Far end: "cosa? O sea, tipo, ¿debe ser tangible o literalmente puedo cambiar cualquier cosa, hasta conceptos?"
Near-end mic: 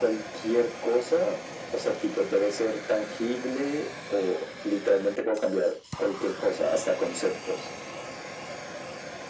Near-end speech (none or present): none